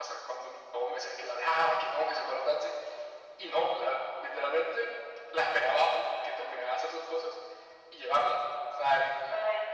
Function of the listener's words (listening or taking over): taking over